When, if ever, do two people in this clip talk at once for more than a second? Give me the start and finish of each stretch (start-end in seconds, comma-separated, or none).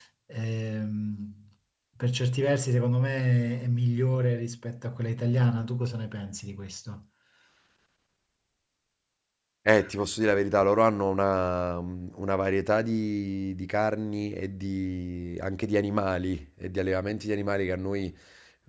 none